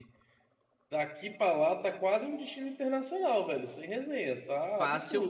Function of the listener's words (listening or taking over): taking over